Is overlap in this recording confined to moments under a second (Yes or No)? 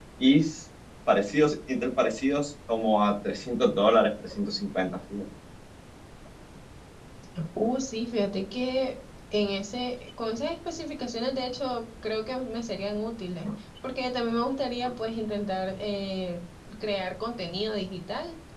Yes